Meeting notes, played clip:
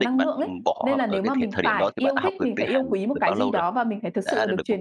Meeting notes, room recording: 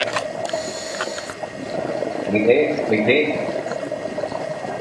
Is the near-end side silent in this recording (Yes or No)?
No